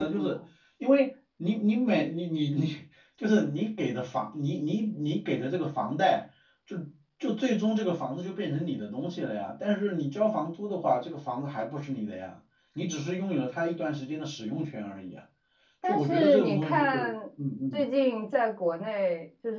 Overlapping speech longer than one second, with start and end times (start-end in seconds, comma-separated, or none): 15.9-17.1